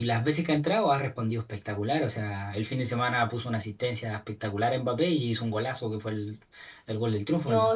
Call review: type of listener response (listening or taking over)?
taking over